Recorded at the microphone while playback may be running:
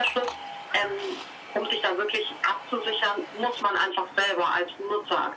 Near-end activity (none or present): none